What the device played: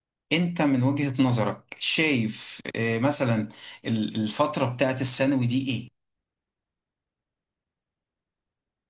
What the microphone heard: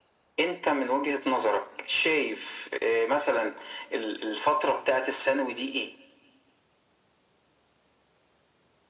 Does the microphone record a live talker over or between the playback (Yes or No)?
No